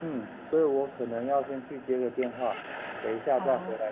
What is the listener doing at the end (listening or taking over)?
listening